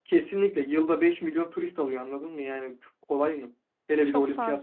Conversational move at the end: listening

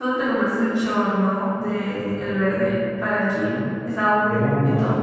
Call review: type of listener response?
taking over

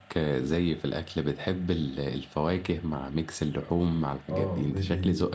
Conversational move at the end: taking over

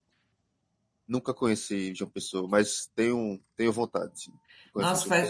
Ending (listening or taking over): taking over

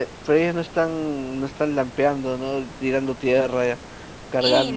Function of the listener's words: taking over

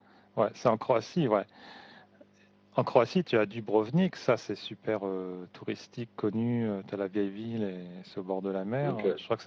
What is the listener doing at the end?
listening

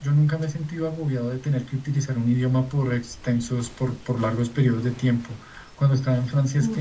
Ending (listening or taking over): listening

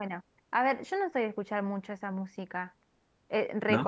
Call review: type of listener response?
listening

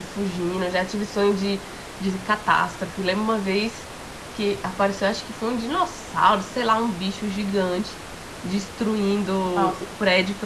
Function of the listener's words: listening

